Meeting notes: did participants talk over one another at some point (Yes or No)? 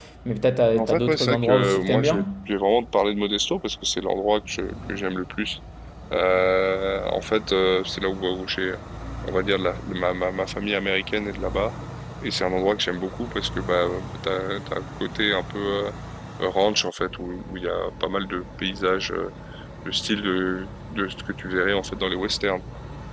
Yes